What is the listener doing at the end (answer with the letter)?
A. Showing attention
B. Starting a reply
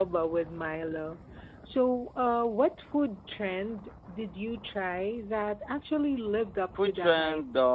B